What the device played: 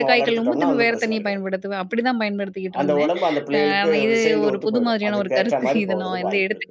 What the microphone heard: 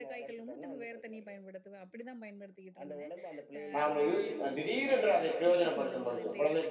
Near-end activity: present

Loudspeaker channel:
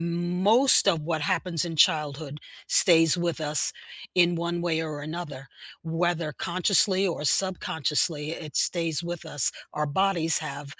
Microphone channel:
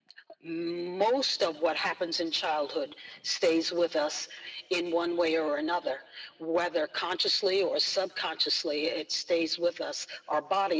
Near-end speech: none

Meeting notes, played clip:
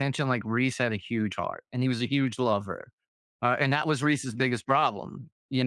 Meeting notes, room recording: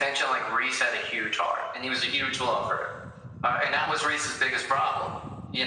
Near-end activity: none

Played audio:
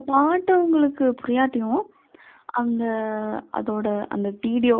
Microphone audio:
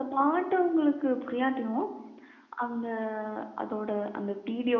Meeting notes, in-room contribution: none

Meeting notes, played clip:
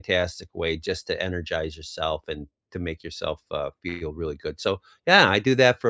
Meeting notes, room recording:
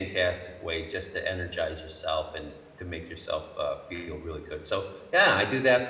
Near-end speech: none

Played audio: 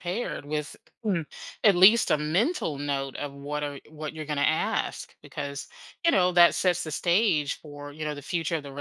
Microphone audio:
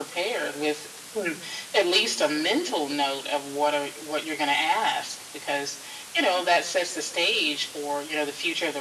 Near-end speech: none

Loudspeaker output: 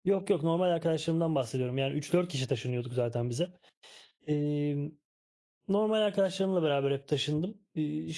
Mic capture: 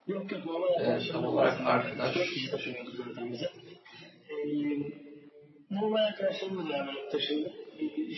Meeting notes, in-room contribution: present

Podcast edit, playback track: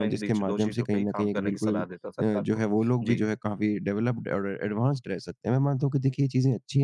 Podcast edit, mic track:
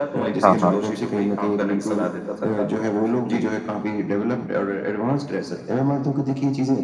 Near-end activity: present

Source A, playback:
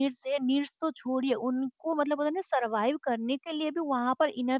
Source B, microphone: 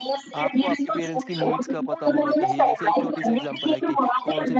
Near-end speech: present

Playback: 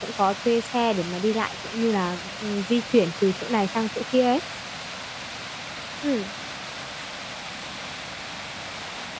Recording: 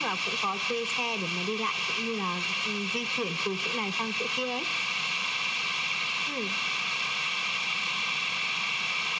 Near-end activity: none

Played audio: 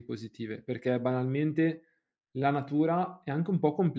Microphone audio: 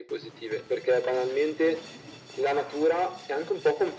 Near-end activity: none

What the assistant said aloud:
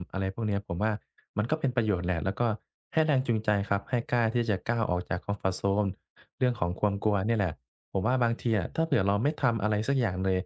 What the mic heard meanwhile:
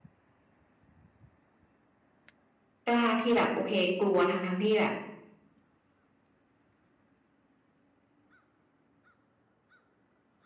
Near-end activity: present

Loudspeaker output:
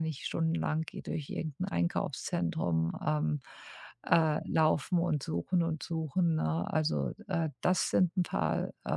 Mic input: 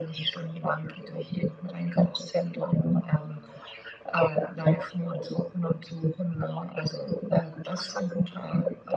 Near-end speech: none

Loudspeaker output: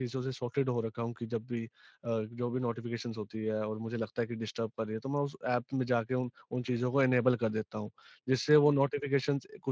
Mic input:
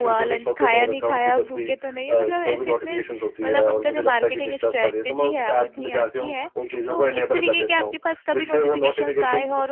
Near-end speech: present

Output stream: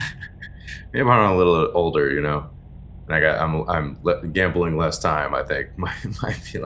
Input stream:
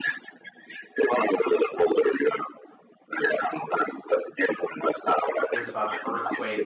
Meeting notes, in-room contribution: present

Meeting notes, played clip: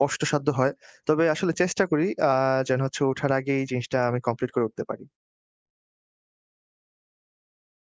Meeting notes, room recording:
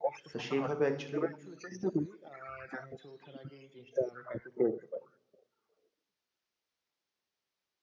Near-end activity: present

